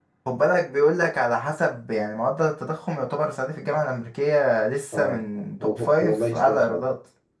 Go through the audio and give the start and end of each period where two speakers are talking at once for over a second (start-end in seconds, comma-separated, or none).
5.6-6.8